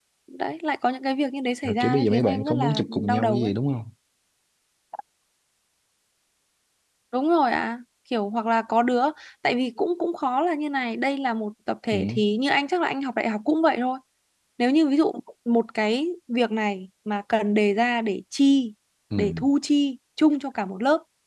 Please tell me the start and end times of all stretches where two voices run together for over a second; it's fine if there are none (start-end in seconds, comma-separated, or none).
1.6-3.5